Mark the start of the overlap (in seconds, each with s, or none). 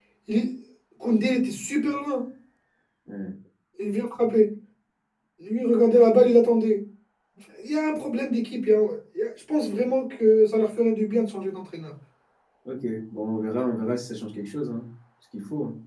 none